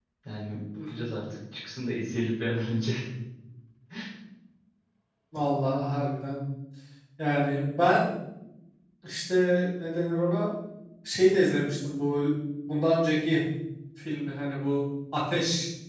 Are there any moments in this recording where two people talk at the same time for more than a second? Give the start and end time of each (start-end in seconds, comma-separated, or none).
none